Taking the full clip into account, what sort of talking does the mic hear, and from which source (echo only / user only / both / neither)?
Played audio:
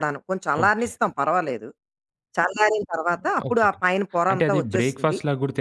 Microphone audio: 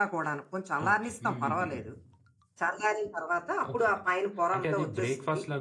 both